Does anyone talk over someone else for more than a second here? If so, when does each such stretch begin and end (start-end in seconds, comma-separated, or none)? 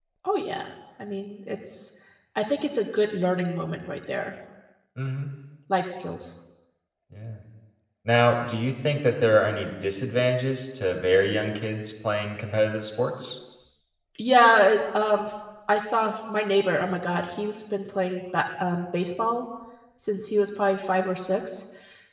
none